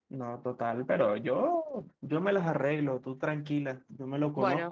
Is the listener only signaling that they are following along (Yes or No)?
Yes